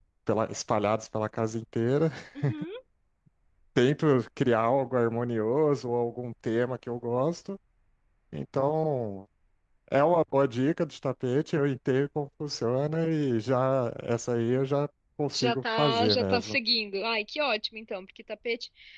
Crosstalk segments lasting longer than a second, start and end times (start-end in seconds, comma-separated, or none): 15.3-16.6